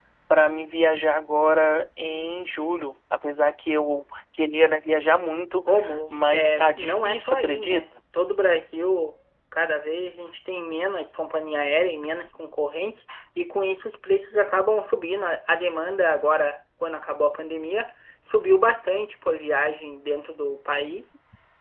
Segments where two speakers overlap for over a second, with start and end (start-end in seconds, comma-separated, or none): 6.1-7.8